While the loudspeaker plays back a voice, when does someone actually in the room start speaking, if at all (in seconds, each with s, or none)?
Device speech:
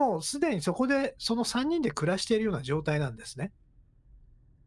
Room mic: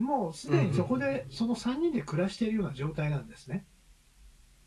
0.5 s